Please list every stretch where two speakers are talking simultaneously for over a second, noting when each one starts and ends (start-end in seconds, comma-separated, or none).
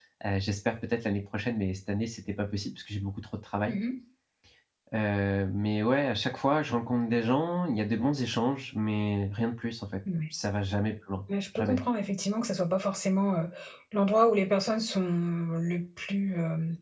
none